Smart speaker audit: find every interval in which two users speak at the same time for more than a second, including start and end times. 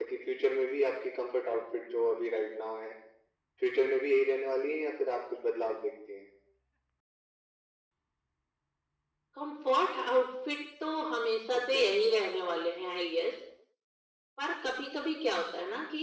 none

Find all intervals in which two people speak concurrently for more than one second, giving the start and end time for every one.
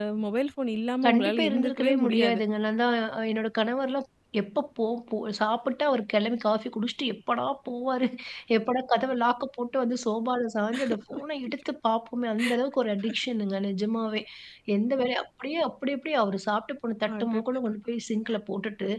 1.1-2.4

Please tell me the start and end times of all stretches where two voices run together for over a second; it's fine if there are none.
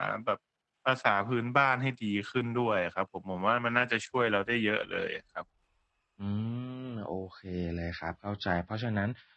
none

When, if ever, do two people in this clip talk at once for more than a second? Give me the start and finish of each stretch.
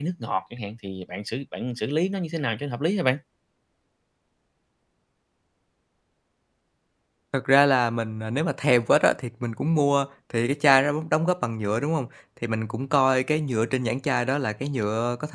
none

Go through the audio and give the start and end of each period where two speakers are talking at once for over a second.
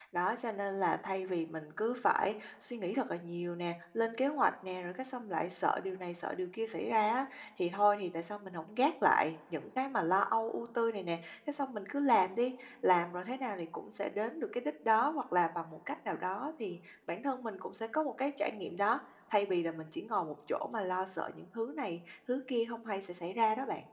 none

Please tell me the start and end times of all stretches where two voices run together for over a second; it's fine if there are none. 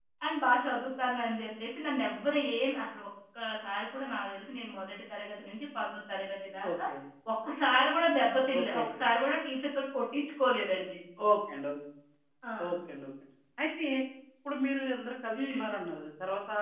none

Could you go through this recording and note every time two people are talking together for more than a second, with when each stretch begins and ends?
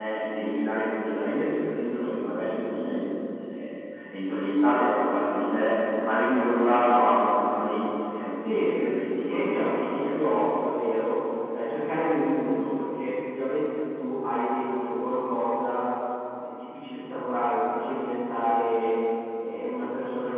8.4-10.4

